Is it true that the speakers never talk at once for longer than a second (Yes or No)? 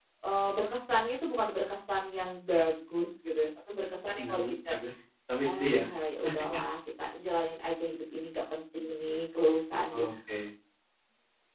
Yes